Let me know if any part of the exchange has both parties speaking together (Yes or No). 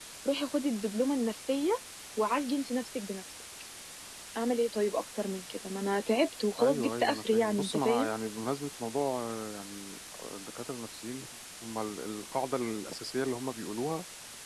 Yes